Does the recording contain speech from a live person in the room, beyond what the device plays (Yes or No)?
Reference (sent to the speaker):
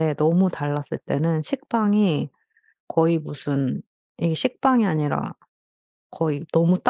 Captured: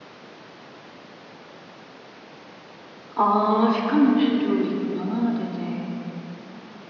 Yes